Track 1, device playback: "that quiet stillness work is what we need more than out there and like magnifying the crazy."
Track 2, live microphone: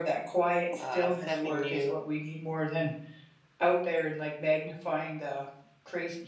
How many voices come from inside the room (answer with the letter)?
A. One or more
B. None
A